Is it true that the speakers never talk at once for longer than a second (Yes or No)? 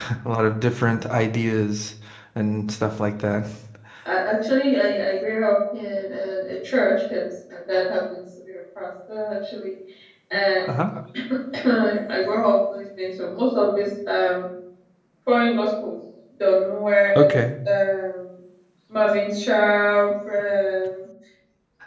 Yes